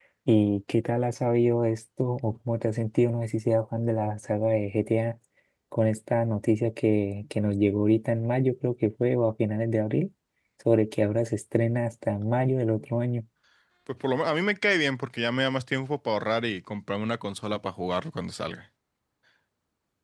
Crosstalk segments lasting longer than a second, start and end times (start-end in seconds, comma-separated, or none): none